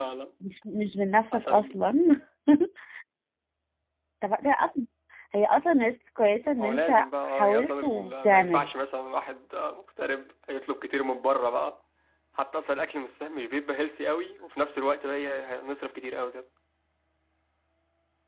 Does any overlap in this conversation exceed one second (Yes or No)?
Yes